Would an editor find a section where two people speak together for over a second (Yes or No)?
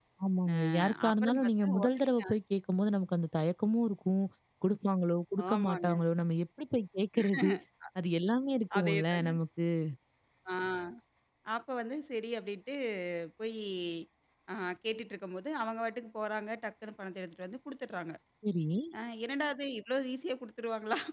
Yes